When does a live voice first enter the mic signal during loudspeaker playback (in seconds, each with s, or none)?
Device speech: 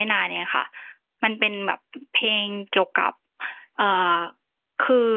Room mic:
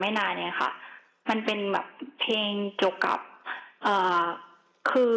none